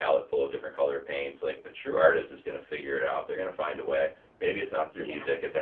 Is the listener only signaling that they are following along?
Yes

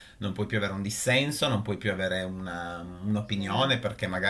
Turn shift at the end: No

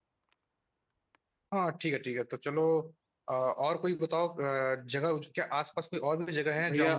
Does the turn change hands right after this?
Yes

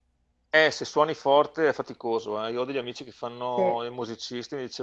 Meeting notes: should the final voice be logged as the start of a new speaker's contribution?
No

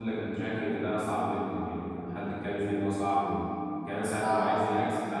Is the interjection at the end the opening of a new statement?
No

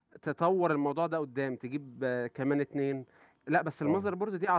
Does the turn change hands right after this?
No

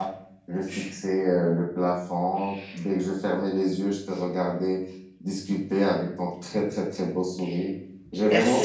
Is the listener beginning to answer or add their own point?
Yes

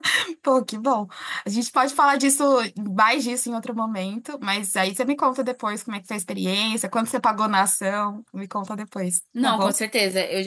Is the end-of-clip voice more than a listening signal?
Yes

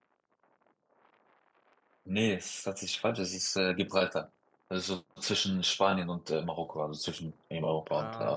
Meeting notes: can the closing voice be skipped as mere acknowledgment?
No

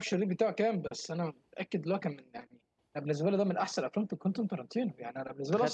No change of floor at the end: Yes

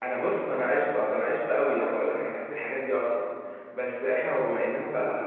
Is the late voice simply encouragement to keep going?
No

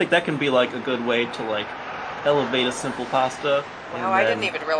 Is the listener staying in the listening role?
No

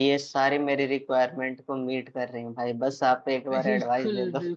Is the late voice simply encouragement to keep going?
No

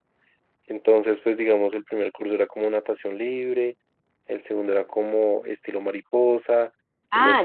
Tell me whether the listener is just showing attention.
No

